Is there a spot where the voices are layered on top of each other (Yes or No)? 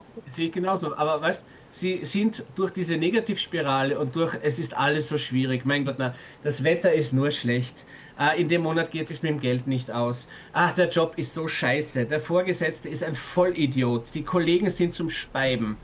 No